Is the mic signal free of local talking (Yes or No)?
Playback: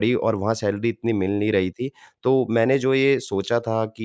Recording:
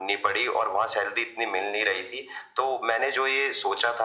Yes